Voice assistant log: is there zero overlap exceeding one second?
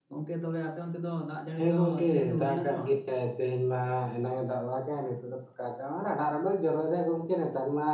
No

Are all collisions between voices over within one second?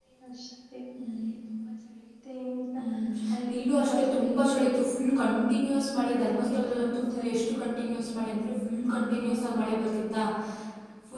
No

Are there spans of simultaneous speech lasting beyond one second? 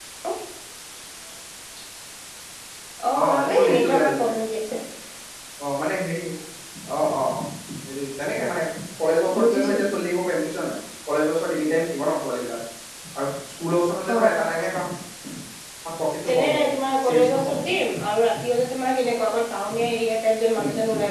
Yes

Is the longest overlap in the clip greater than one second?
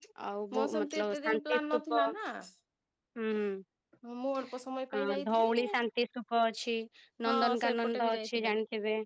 Yes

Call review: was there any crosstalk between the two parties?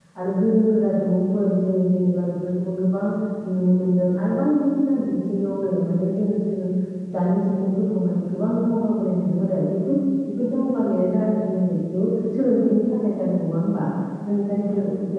No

